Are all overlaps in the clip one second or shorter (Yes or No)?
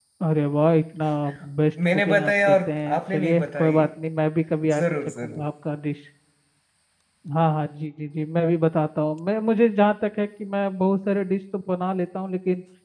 No